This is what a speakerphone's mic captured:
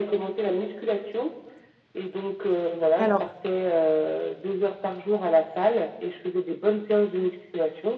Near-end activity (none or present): present